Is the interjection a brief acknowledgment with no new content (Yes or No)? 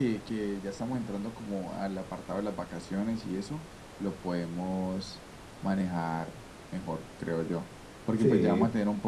Yes